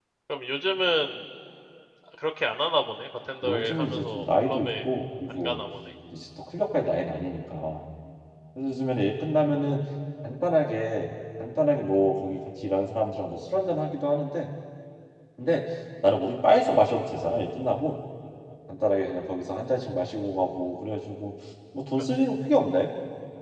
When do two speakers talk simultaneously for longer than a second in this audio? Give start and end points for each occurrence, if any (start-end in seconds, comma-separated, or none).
3.4-4.7